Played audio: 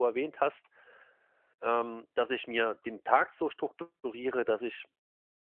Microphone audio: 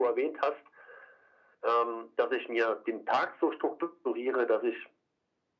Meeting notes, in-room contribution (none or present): none